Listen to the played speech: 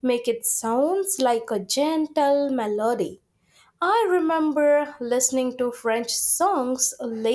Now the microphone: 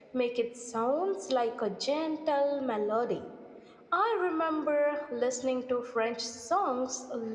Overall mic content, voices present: echo only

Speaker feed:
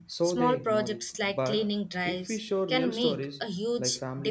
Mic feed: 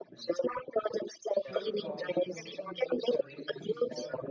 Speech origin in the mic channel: both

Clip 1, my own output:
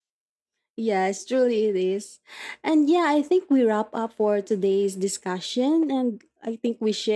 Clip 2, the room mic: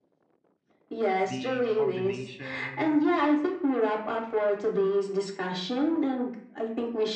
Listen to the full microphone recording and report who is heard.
both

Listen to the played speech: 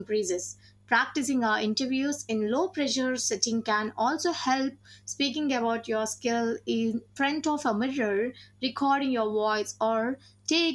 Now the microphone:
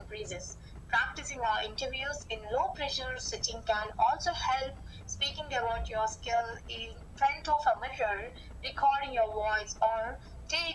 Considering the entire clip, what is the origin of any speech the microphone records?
echo only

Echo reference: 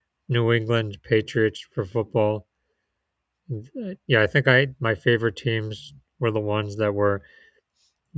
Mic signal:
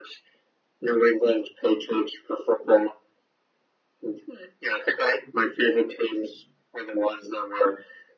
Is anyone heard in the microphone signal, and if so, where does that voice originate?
echo only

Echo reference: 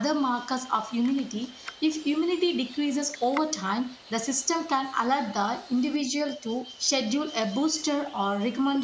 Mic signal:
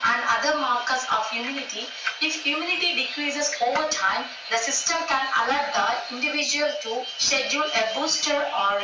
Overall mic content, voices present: echo only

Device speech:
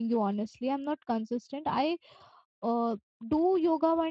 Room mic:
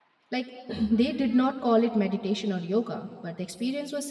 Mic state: user only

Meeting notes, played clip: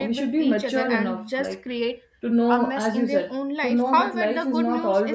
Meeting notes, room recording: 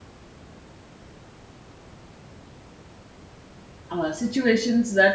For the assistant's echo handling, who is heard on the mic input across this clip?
user only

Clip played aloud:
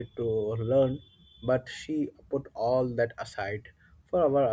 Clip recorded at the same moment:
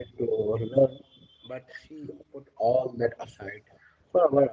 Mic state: echo only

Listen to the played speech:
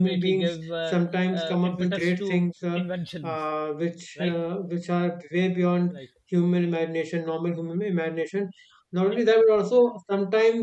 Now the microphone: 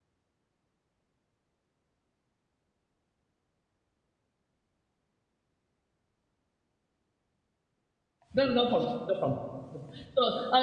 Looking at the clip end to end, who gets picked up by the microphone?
user only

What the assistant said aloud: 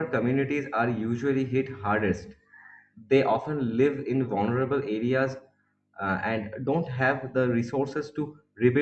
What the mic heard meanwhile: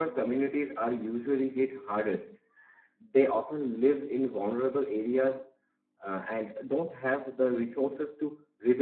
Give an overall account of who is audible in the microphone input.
echo only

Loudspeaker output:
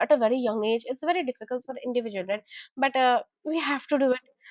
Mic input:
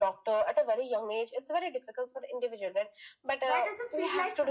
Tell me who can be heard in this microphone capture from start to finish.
both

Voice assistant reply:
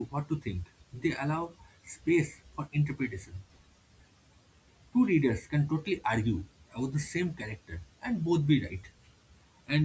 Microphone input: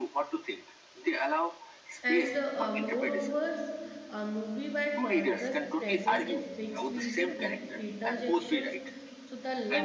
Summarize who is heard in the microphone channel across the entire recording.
both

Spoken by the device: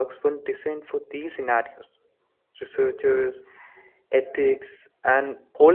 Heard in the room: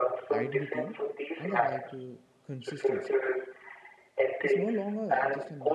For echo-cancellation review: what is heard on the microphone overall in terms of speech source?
both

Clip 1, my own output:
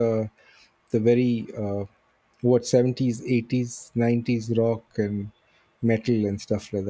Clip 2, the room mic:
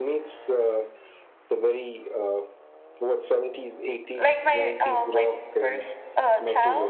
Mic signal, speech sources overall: both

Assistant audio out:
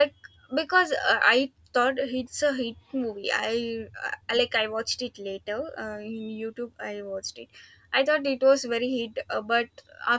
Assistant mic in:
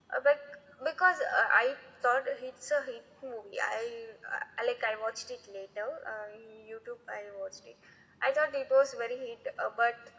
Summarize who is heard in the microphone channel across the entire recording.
echo only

